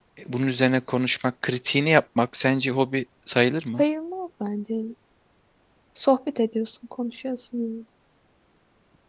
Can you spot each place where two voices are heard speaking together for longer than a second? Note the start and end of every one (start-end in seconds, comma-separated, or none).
none